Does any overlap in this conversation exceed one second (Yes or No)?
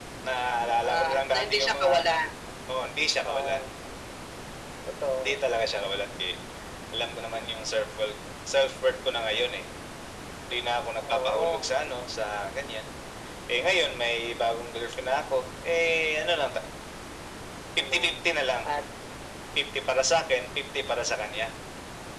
Yes